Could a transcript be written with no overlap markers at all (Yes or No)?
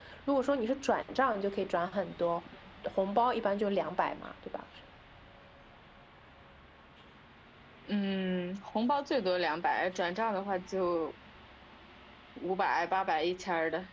Yes